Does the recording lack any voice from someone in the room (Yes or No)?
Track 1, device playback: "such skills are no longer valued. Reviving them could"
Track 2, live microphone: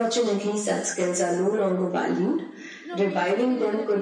No